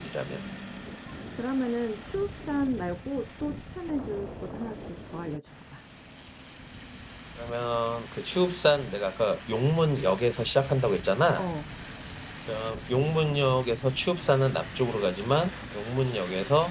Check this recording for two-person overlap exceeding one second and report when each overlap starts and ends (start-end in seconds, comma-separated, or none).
none